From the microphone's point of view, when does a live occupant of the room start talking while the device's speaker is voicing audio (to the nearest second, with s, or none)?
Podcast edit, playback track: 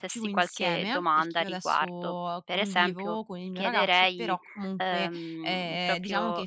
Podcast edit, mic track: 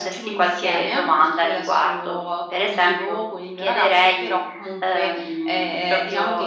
none